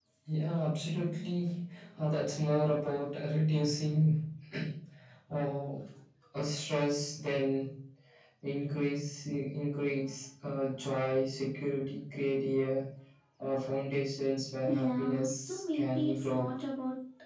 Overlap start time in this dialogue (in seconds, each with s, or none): 14.7 s